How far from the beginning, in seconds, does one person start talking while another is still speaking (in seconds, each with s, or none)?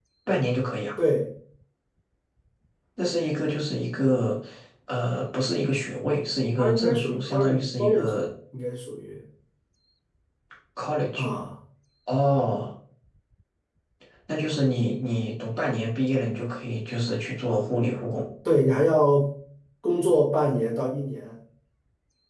6.6 s